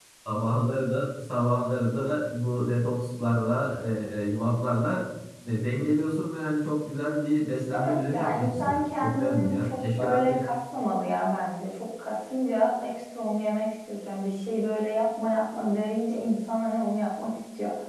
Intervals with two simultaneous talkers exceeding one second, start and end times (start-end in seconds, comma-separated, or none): 7.7-10.3